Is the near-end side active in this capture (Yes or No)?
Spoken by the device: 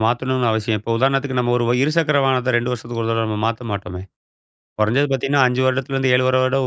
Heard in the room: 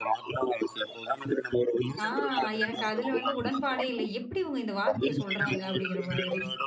Yes